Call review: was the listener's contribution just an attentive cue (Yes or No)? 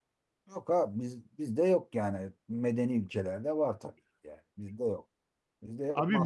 No